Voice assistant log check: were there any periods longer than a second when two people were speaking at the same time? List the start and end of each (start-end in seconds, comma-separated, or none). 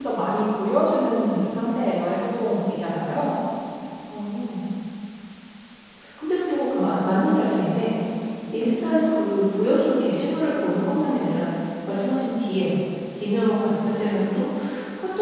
none